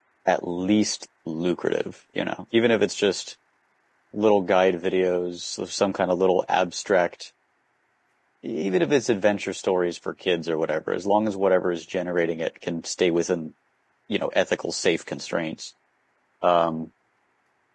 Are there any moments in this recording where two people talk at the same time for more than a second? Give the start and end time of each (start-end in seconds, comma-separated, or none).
none